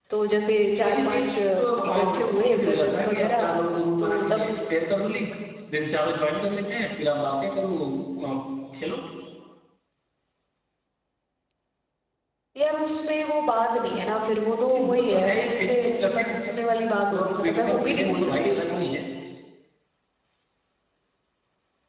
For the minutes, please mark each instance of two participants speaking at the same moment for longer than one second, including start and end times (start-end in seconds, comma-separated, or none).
0.8-3.5, 14.7-16.3, 17.4-18.9